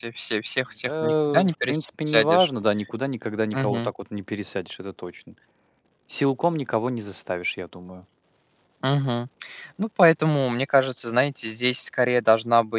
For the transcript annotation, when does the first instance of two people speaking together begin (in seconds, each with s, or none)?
0.8 s